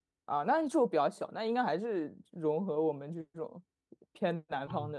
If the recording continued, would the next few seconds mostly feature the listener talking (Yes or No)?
Yes